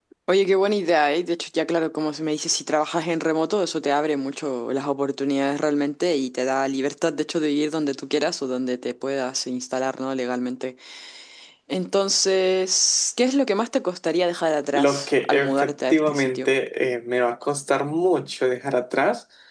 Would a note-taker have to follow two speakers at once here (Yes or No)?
Yes